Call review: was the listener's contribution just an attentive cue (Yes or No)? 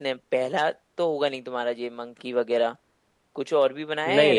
No